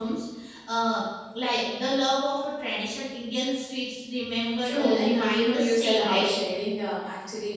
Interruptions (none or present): present